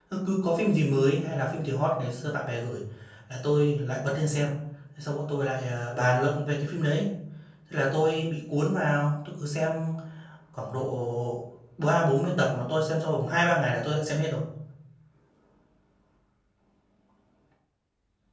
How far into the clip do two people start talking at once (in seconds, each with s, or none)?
none